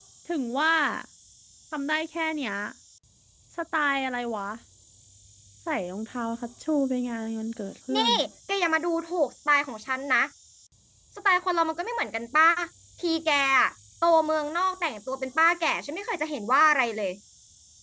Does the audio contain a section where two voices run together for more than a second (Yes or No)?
No